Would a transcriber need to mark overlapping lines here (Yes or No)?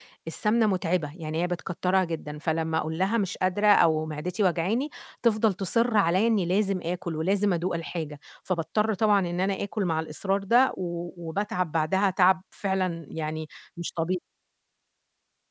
No